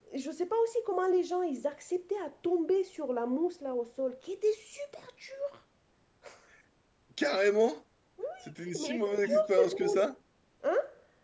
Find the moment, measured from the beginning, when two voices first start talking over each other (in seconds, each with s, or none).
8.8 s